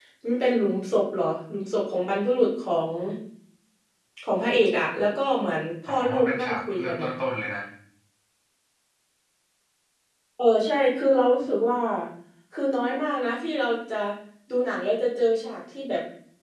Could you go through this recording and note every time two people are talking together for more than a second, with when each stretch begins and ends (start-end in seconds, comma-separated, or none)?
5.9-7.1